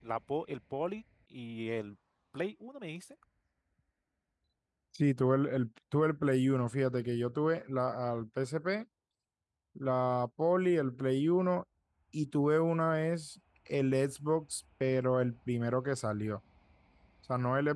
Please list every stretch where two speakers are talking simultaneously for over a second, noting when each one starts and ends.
none

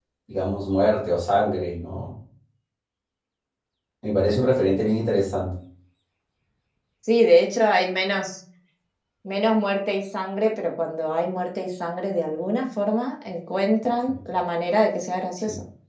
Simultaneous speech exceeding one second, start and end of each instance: none

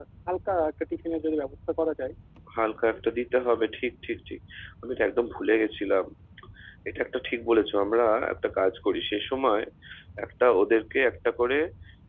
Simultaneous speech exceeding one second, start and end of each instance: none

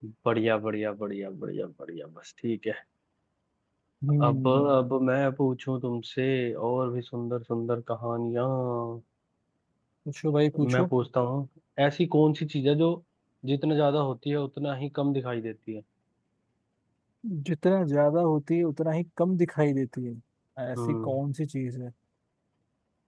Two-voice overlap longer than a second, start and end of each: none

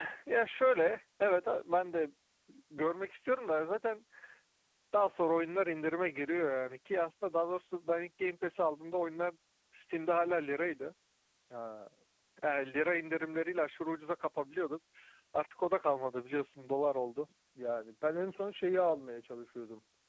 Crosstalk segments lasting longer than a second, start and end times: none

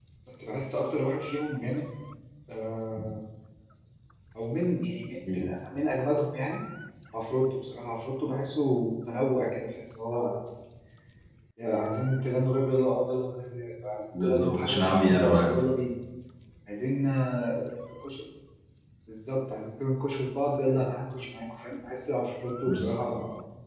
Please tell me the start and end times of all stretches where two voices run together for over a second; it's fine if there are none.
14.2-15.7

